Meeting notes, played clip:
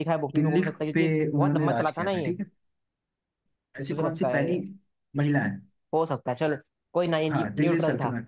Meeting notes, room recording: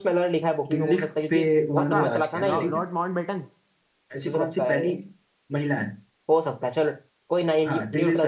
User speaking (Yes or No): Yes